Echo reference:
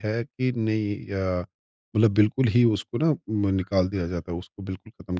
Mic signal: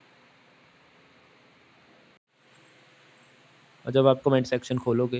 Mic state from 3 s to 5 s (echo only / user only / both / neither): user only